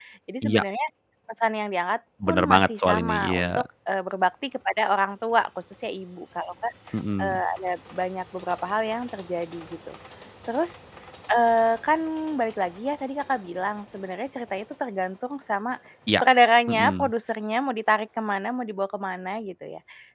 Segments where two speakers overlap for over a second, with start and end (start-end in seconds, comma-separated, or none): 2.3-3.6